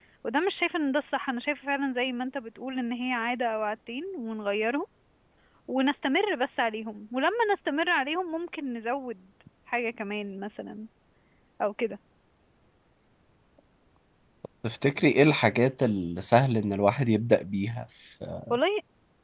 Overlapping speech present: No

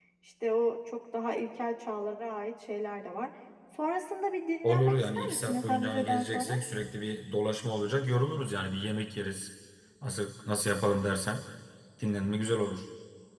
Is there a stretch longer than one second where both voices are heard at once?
Yes, from 4.6 s

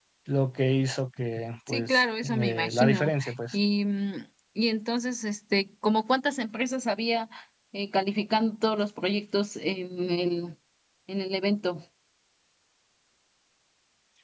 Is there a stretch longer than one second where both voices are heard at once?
Yes, from 1.7 s

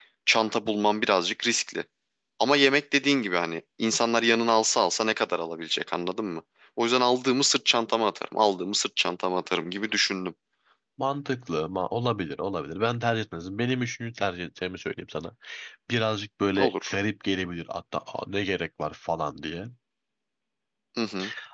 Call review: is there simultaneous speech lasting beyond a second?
No

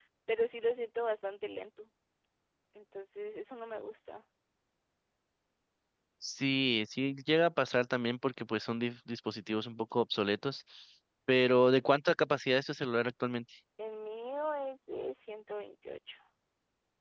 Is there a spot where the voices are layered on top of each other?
No

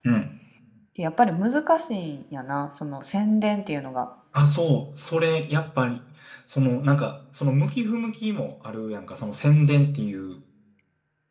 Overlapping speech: No

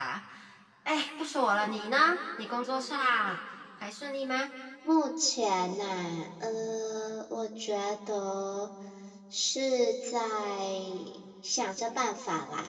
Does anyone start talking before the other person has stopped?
No

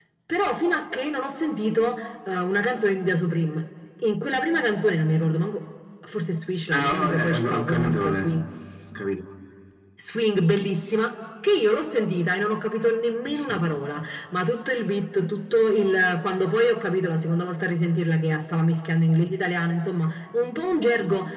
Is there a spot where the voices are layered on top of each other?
Yes, from 6.7 s

